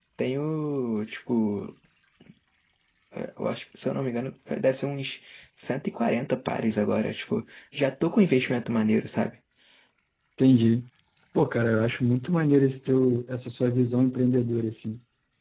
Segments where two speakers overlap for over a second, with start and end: none

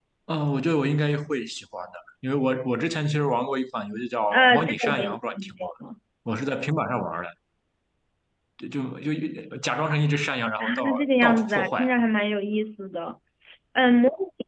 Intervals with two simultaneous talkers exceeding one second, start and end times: 4.3-5.7, 10.6-11.9

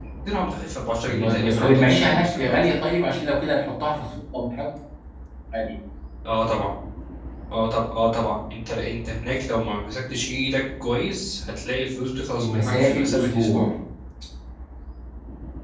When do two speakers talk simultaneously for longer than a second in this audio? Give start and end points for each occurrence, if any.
1.1-2.7, 12.4-13.7

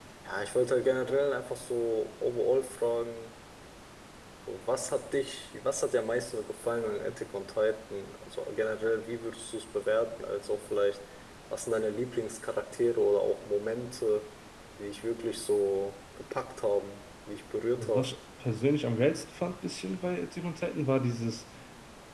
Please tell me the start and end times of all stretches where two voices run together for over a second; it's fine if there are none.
none

